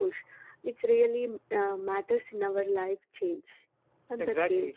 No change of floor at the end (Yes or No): No